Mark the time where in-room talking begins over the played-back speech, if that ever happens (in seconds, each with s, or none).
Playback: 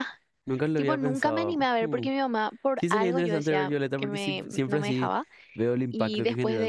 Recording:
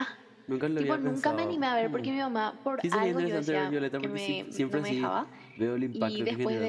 none